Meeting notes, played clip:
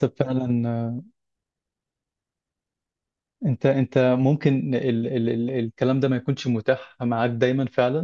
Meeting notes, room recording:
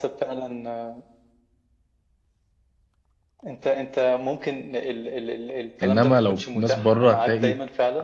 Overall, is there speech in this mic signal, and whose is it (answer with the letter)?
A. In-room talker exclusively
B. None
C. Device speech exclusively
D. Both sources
D